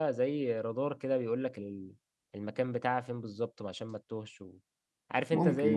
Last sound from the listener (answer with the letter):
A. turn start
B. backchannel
B